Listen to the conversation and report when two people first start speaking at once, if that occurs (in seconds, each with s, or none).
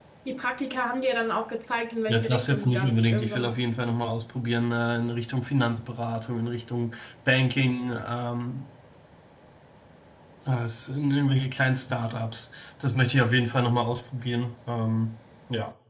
2.1 s